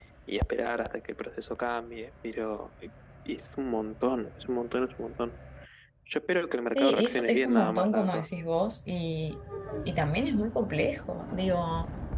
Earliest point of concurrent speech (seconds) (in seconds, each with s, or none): 6.8 s